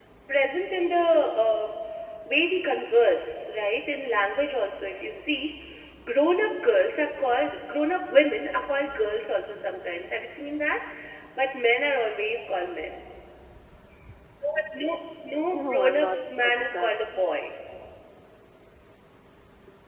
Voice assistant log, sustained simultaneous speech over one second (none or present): present